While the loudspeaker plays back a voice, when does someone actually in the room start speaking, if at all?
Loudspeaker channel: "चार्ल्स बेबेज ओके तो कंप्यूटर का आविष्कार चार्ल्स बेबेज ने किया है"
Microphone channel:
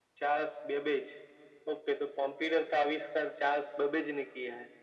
none

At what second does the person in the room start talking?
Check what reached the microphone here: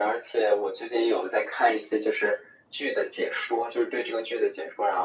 none

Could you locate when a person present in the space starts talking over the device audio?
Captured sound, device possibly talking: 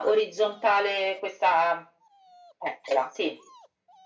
none

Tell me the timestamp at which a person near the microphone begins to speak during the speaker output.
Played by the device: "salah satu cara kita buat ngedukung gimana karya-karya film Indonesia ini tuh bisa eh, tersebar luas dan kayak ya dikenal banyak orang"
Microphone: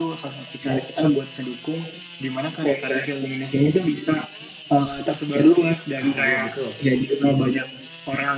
6.0 s

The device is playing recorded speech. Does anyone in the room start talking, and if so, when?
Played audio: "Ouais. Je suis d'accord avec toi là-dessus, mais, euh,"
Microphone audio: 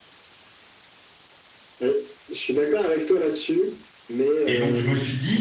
4.4 s

